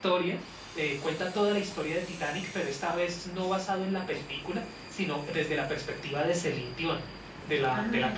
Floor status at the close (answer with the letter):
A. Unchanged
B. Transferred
A